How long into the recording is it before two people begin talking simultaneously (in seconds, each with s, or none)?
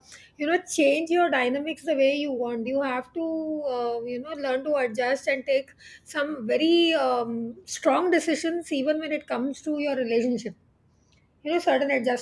none